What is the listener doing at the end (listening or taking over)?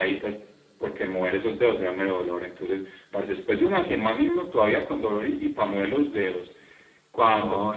listening